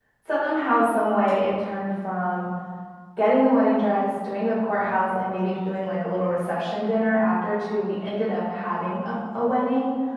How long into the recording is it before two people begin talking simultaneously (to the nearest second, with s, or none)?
none